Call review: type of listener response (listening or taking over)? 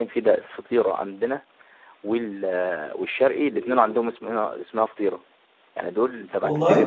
listening